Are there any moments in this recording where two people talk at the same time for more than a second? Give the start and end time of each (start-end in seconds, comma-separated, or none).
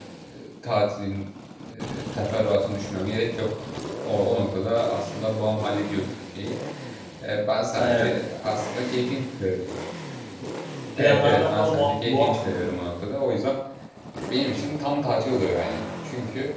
11.0-12.7